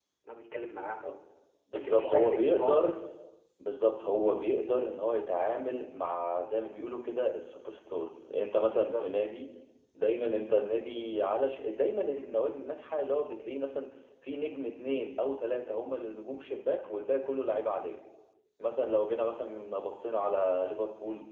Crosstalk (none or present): present